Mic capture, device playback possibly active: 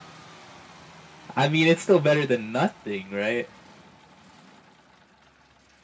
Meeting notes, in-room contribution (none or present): present